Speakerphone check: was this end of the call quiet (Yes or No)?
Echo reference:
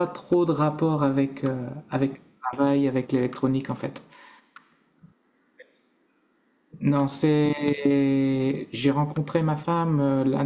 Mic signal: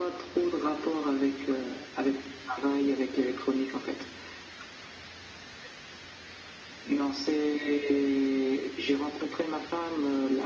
Yes